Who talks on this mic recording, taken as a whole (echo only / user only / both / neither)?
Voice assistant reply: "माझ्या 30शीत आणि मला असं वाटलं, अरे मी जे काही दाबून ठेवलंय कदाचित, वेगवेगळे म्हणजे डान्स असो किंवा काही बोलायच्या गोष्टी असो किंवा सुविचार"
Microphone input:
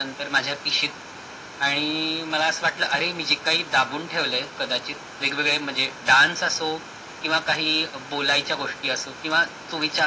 echo only